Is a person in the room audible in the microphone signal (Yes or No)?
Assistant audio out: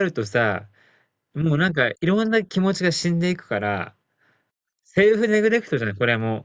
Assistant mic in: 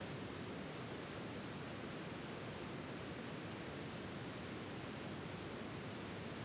No